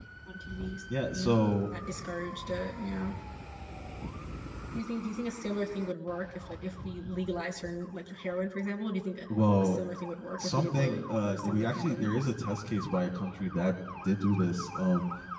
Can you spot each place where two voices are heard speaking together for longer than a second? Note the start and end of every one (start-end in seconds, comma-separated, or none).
10.4-12.3